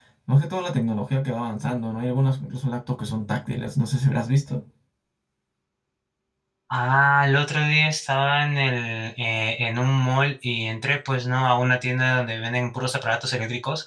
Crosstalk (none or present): none